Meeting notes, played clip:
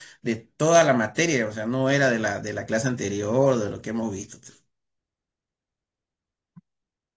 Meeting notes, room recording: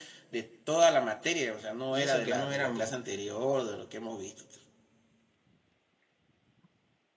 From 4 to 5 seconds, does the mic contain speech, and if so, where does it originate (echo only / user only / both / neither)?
echo only